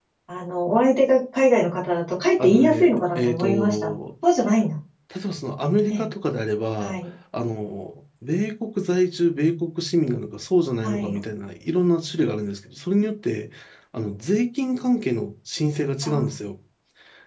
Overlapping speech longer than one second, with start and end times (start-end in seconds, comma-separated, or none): 2.4-3.9